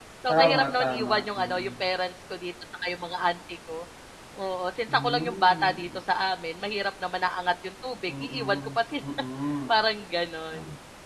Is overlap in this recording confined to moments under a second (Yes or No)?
No